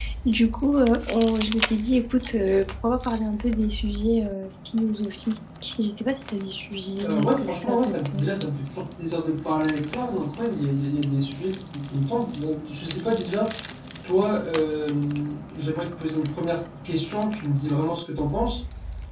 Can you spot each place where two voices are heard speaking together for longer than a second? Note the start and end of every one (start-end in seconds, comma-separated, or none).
7.0-8.3